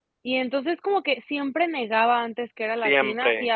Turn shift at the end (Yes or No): No